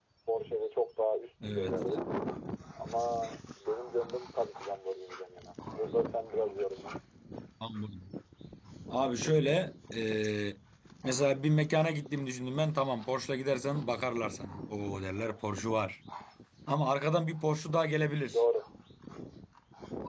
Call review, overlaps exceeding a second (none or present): none